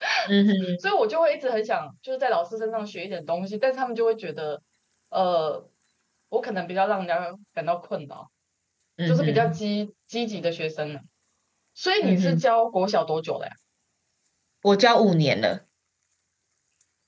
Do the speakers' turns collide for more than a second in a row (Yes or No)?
No